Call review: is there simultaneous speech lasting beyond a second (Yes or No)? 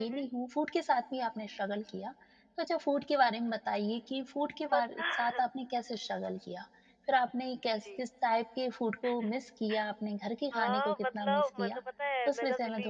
Yes